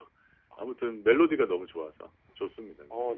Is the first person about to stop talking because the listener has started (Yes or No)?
Yes